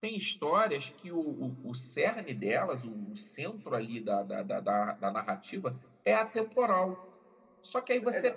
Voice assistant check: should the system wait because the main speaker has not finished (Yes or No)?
No